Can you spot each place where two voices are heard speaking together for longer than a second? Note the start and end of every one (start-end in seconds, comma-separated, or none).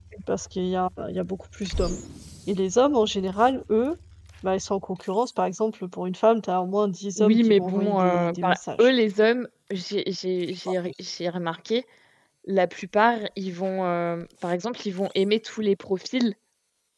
7.2-8.9